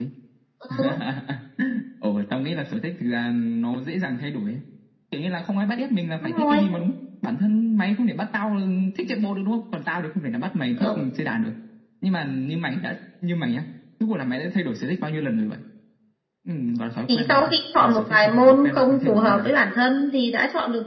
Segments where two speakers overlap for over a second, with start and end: 17.1-19.5

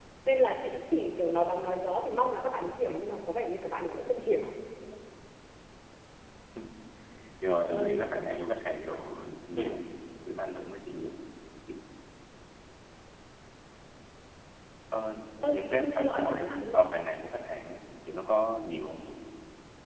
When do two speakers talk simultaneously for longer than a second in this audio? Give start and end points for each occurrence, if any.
15.4-16.8

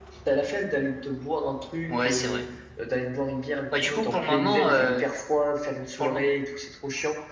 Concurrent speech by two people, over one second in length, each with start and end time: 3.8-5.0

